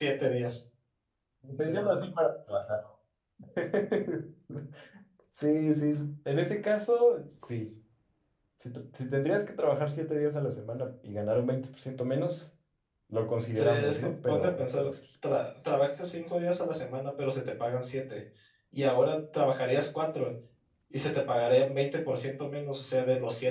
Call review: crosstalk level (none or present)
present